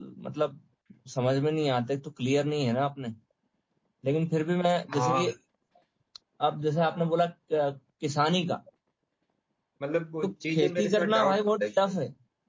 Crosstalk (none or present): present